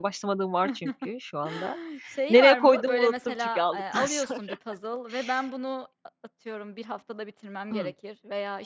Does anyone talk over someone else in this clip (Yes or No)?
Yes